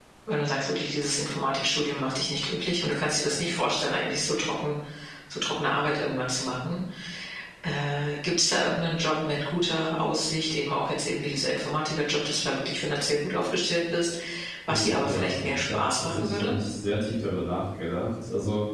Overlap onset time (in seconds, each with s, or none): 14.7 s